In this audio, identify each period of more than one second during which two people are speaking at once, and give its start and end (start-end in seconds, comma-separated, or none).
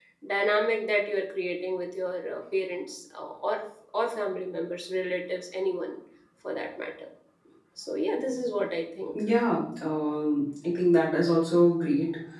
none